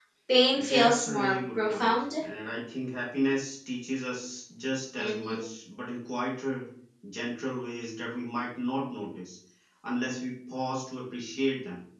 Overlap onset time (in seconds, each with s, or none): 0.7 s